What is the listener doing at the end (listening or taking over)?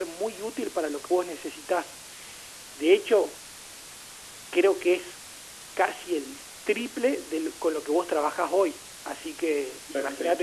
taking over